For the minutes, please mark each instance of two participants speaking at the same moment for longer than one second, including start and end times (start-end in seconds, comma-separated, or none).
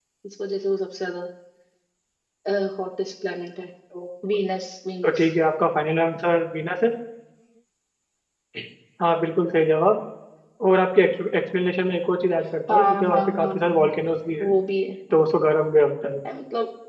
12.7-13.9